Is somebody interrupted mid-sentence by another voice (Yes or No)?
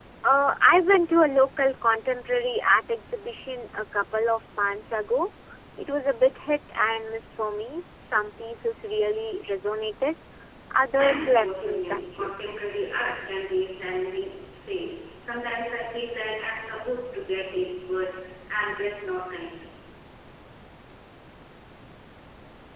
Yes